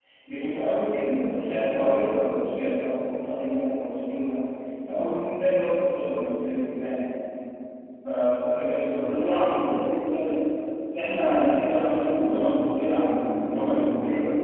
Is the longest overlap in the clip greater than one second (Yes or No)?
No